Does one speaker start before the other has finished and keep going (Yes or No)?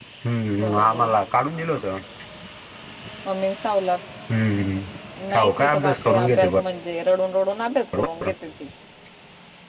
Yes